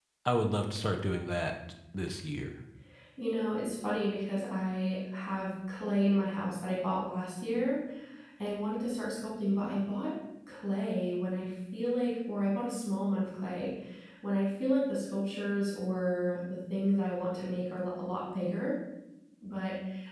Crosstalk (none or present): none